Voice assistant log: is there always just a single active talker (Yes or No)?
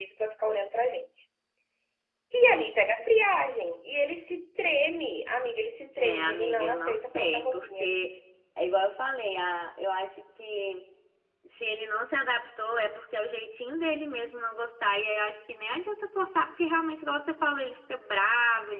No